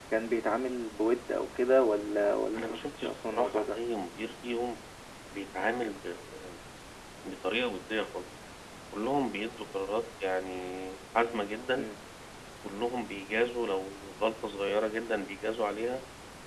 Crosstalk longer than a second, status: present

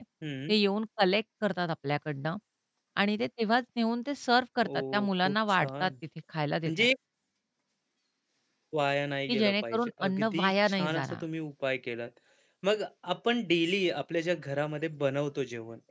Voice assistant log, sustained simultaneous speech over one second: present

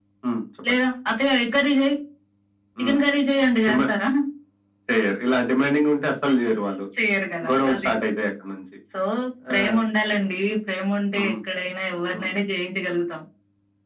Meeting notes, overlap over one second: none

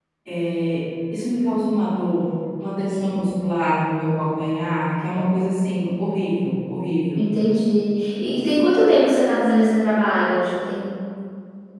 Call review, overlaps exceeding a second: none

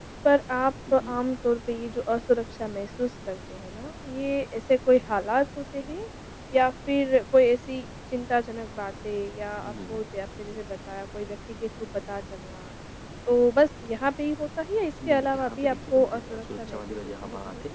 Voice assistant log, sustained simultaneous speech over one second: present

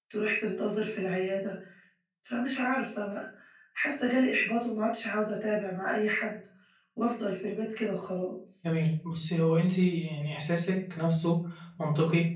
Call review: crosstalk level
none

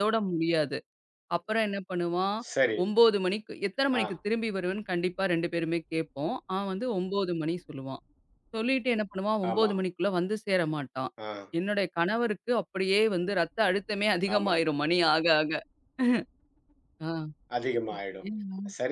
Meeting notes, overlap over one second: none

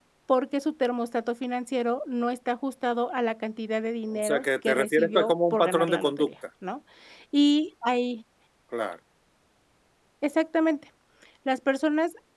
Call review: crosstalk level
present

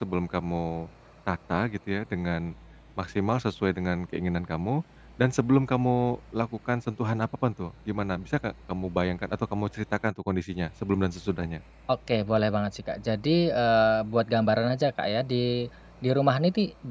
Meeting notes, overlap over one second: none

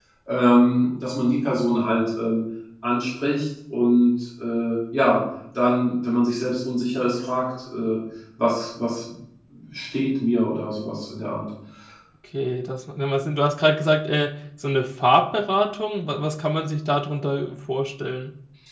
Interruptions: none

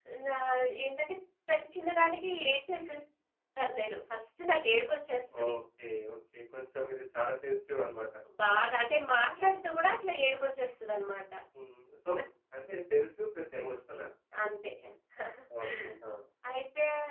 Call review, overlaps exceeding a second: none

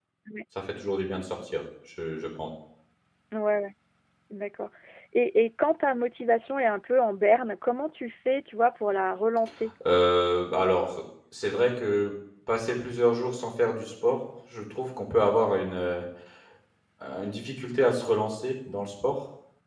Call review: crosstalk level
none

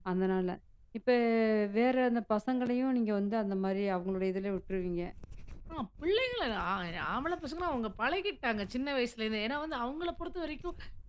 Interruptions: none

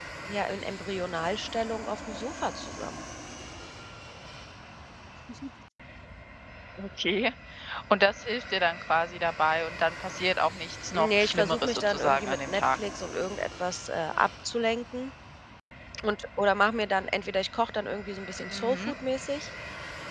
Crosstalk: present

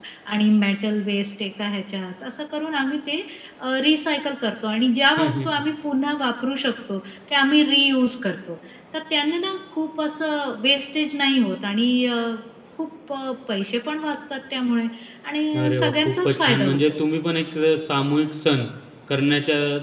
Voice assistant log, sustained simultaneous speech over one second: present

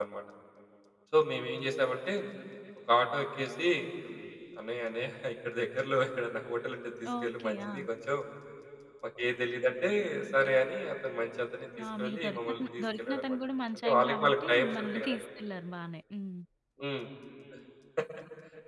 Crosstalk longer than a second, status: present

